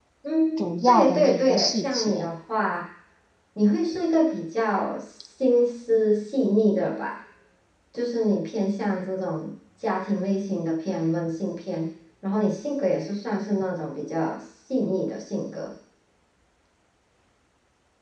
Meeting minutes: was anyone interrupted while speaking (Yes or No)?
Yes